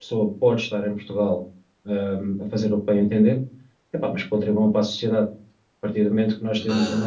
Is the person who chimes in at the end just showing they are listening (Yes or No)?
Yes